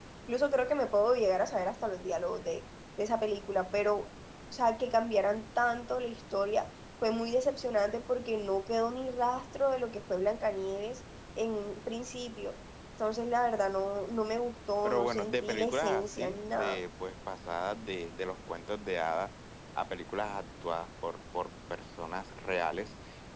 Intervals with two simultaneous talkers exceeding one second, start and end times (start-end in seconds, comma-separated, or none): 14.8-16.8